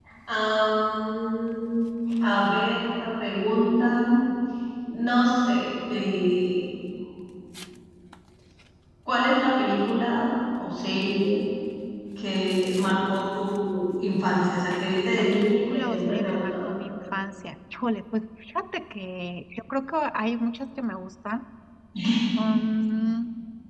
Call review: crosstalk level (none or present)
present